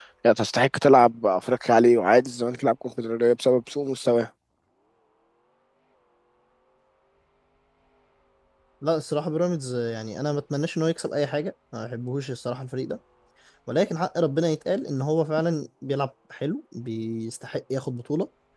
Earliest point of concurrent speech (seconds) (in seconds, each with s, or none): none